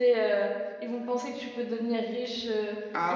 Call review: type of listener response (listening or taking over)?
taking over